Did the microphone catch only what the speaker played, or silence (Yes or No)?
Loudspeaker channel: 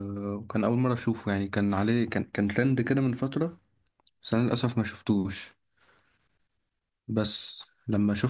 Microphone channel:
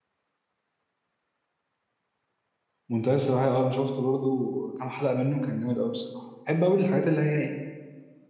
No